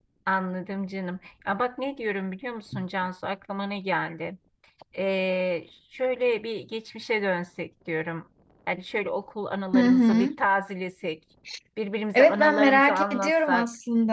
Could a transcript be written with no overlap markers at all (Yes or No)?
No